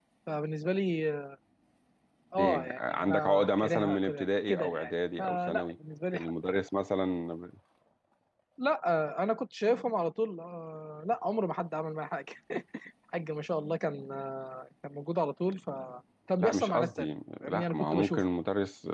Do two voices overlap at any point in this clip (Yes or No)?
Yes